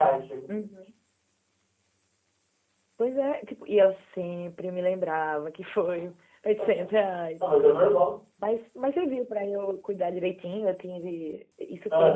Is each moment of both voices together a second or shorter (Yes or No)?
Yes